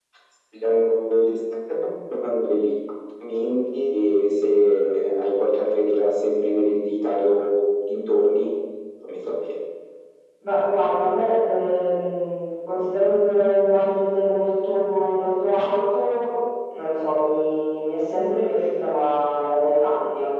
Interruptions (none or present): none